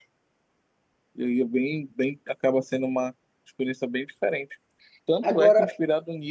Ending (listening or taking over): listening